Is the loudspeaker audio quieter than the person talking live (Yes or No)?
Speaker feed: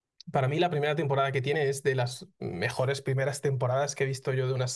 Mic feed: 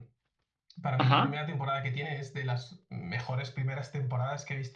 Yes